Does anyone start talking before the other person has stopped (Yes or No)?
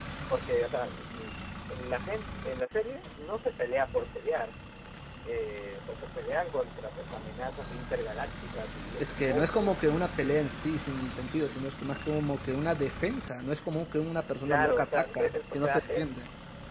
Yes